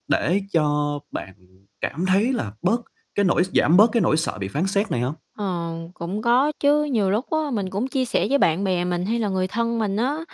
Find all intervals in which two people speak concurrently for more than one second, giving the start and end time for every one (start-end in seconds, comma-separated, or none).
none